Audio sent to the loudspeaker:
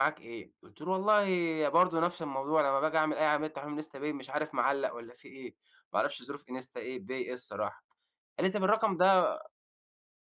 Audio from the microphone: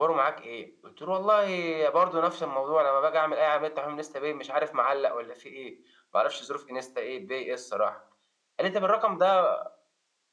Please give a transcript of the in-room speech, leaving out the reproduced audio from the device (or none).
none